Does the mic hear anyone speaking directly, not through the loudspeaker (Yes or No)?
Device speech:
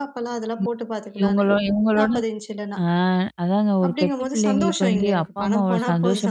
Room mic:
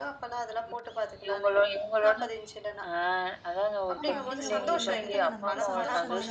Yes